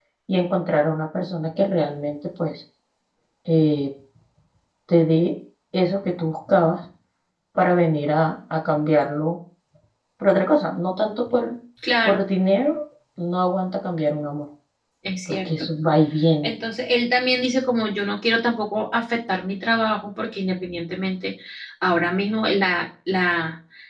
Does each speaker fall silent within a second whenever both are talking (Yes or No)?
Yes